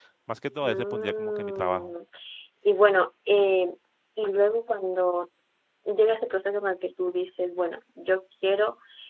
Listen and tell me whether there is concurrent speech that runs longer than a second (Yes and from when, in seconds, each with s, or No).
Yes, from 0.6 s